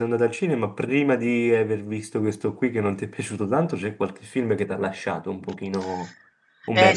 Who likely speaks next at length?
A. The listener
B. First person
A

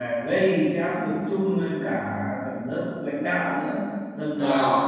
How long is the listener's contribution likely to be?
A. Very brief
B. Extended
A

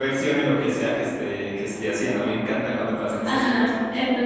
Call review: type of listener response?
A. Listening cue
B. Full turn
B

